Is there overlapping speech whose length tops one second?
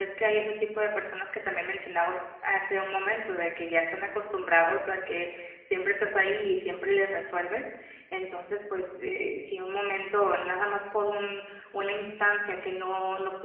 No

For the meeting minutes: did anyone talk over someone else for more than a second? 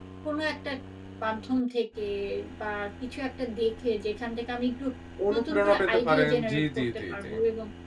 Yes, from 5.3 s

